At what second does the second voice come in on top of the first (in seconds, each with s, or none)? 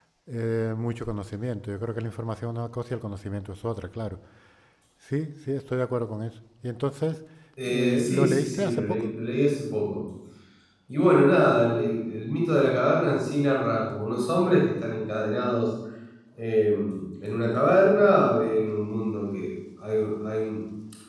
7.7 s